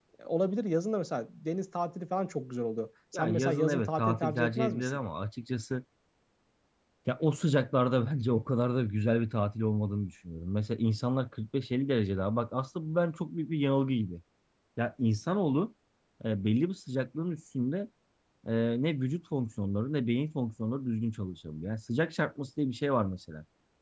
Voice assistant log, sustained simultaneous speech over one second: present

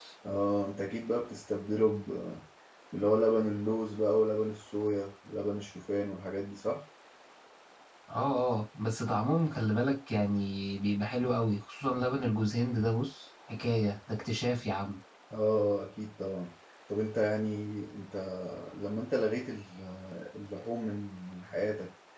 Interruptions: none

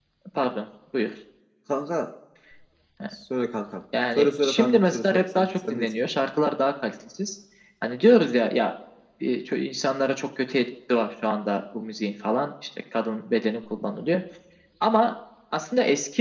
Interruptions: present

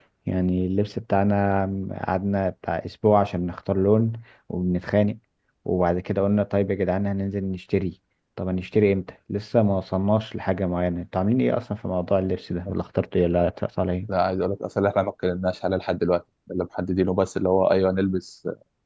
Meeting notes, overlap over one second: none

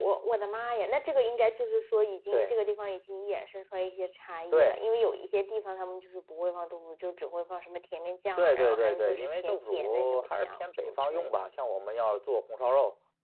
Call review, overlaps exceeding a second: present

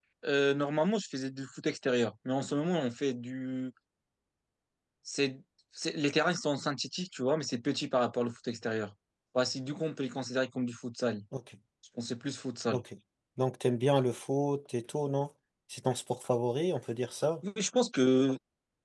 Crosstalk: none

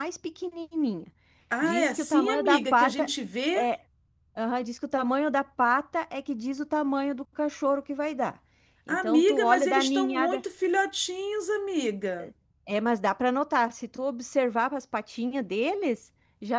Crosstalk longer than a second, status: present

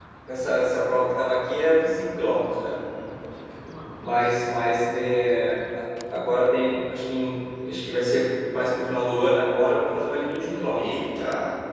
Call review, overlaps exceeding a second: none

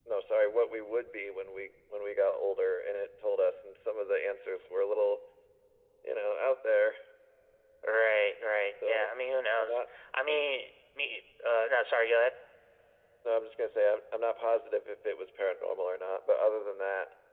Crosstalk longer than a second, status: none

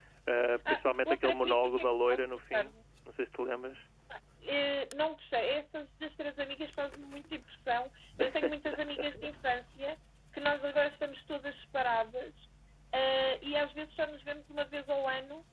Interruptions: present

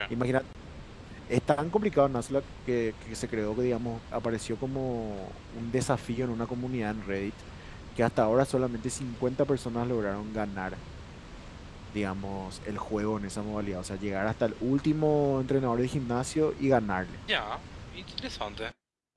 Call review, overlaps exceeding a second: none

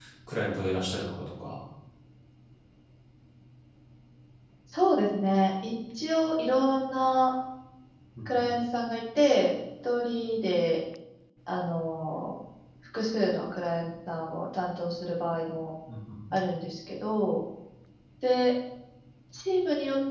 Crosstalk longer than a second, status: none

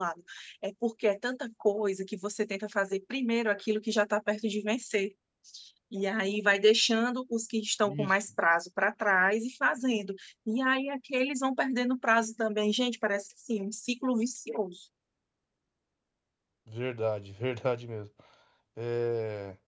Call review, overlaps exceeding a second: none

